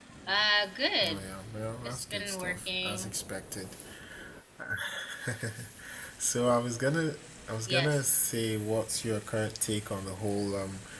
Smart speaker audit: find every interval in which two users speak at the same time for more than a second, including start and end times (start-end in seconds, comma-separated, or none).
1.8-3.1